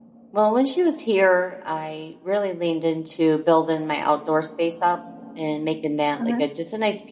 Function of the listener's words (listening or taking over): listening